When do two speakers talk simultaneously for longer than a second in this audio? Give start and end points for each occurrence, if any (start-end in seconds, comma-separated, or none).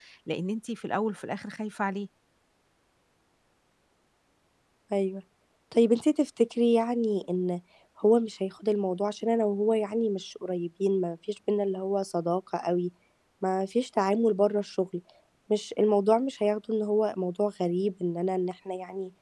none